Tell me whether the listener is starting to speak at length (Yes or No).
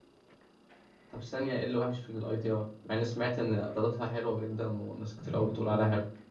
Yes